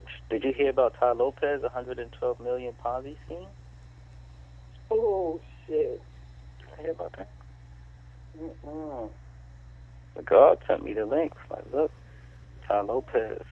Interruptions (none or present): none